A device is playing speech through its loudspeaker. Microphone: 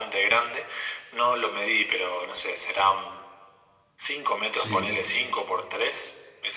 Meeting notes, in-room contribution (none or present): present